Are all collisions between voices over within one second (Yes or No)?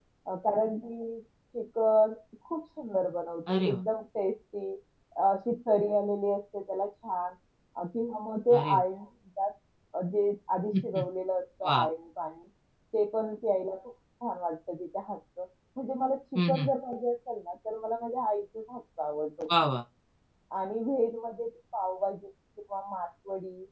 Yes